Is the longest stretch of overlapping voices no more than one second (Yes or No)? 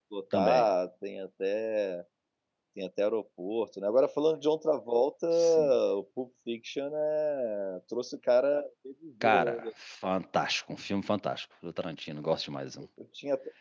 Yes